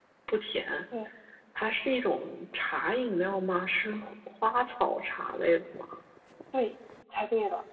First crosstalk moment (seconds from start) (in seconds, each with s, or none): none